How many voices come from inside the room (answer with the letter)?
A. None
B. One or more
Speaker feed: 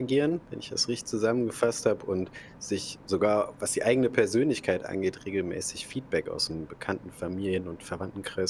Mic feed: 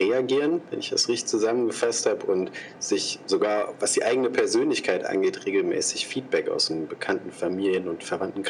A